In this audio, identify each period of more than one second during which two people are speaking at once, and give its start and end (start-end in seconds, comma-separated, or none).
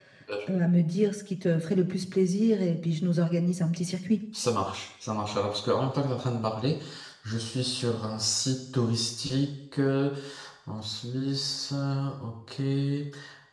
none